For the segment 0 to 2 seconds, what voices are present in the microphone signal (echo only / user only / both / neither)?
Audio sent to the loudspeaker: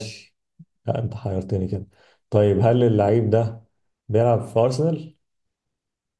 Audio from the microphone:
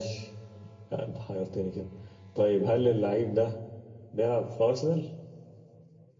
echo only